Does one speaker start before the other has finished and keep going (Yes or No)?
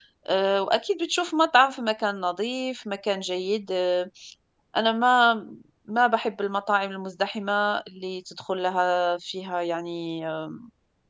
No